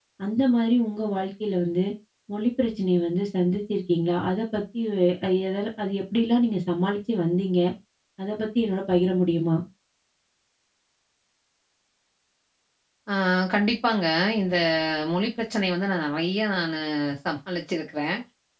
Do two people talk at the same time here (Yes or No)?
No